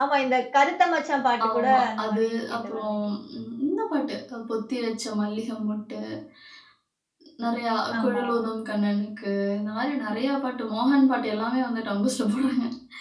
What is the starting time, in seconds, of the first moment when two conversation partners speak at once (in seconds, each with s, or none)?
1.5 s